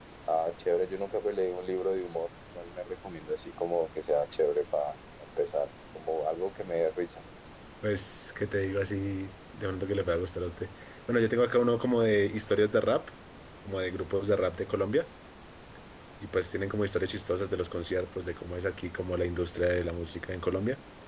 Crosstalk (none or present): none